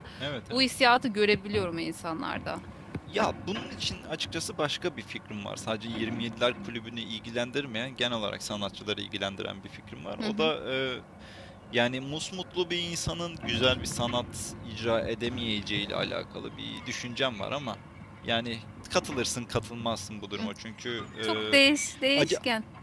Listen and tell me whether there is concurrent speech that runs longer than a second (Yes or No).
No